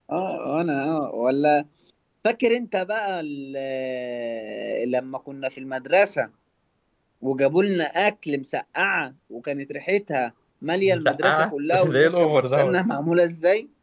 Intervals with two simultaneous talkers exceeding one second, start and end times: 10.8-12.8

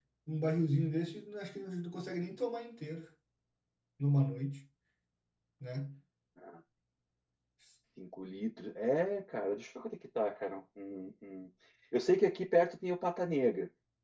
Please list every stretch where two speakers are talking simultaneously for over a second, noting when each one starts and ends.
none

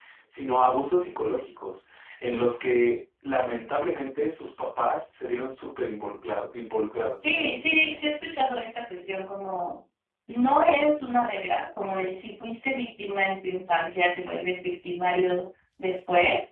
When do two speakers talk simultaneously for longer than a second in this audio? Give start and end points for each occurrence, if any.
none

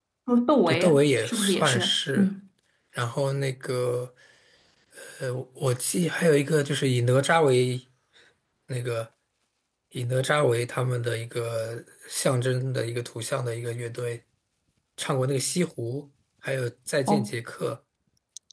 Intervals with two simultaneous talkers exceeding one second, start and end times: 0.7-2.3

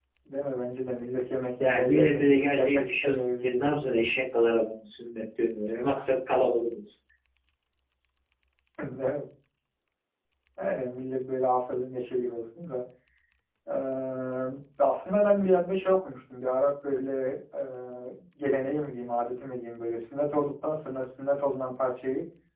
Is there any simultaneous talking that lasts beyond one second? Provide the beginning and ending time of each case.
1.6-3.8

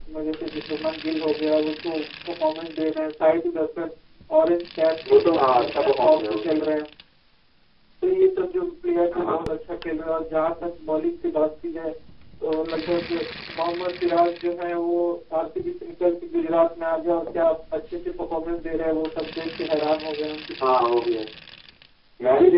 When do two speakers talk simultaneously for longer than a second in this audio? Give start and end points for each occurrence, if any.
5.1-6.5

